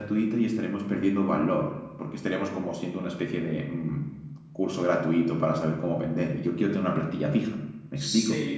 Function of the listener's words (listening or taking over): taking over